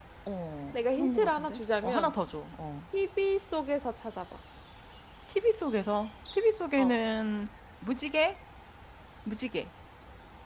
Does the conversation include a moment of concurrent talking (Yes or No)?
Yes